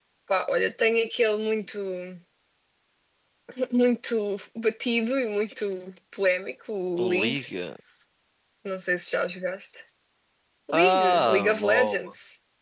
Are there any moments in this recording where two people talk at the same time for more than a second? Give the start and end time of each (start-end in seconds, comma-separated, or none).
10.7-12.1